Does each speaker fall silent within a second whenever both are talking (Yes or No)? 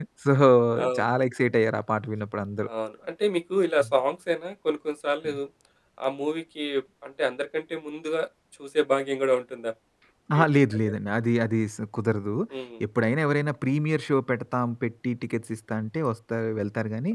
Yes